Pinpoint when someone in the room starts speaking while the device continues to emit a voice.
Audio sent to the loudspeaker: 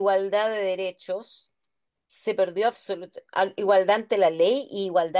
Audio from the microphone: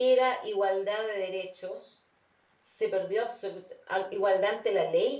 none

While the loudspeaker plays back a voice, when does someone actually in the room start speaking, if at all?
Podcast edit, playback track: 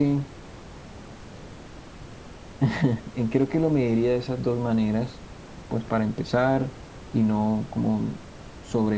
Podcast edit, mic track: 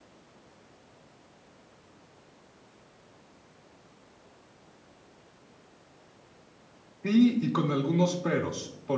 7.0 s

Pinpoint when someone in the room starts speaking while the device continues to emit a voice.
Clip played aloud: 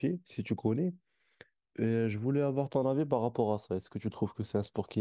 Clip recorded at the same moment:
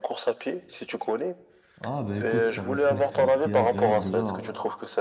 1.8 s

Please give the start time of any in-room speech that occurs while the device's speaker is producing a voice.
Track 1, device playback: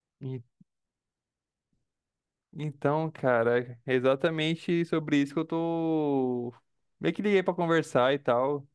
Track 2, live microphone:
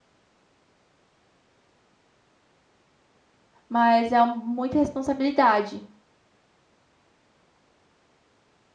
3.7 s

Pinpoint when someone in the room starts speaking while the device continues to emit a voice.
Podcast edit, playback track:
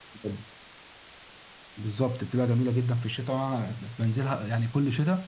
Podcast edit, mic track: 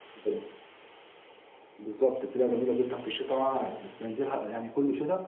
none

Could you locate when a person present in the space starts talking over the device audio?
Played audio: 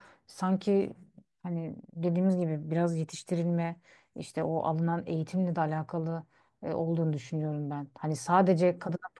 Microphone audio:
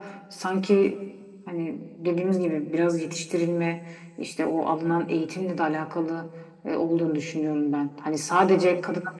none

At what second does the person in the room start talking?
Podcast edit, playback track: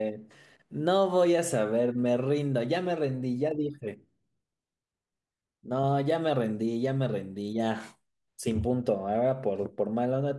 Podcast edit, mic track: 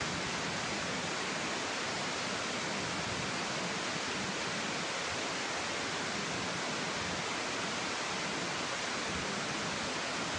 none

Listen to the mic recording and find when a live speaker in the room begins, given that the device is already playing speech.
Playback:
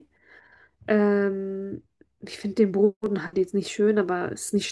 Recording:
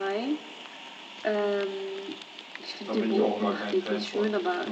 2.8 s

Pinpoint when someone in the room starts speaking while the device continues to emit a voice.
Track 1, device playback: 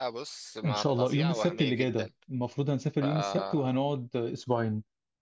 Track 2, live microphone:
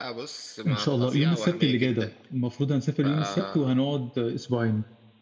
none

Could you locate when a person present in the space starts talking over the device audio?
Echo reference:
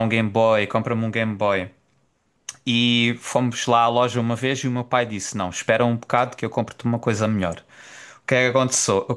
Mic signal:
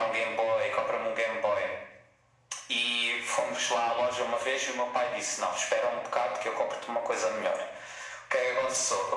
none

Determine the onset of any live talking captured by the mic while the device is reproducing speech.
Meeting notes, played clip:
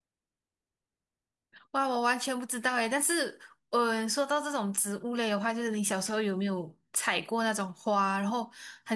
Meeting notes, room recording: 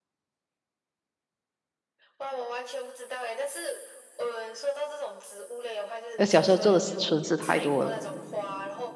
6.2 s

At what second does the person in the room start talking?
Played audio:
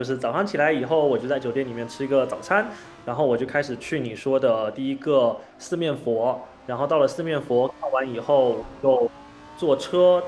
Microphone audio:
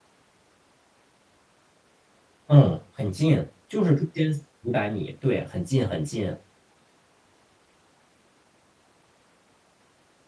2.4 s

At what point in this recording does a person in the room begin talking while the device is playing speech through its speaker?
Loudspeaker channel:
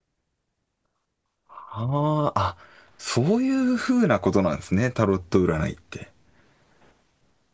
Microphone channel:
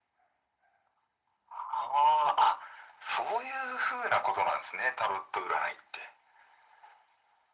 none

